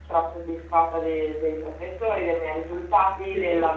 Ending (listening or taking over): listening